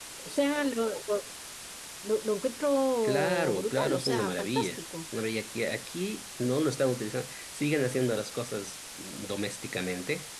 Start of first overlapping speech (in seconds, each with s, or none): 3.0 s